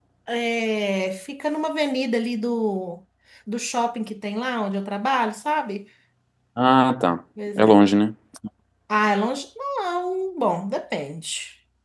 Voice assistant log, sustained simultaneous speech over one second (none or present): none